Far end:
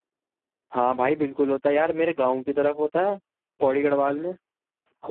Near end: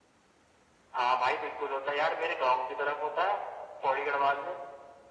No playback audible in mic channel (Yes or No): No